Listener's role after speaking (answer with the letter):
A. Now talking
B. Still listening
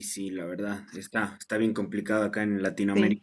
B